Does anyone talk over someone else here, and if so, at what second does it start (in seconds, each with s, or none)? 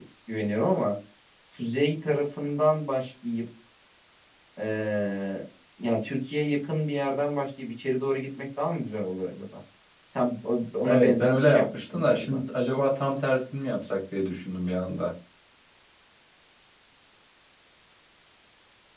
10.8 s